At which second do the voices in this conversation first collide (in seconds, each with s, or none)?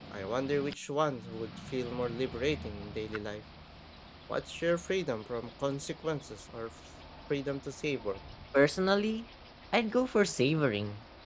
none